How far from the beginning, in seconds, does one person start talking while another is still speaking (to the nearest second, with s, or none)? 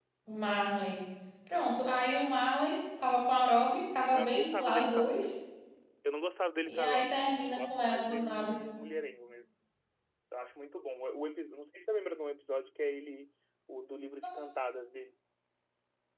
4 s